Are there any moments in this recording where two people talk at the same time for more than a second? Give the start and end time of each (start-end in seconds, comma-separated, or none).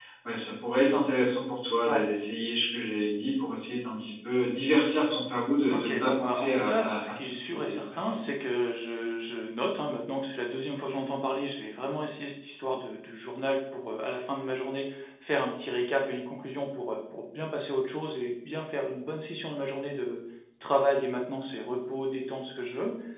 5.7-8.2